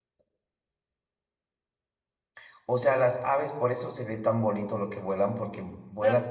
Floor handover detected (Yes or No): Yes